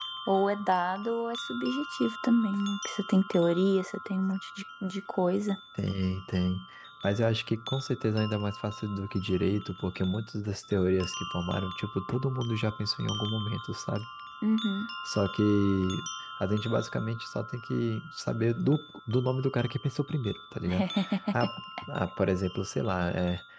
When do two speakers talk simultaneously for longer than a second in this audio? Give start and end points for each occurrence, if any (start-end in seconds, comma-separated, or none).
none